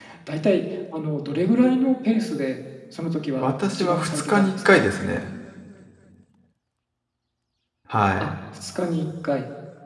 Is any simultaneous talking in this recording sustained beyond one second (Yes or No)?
Yes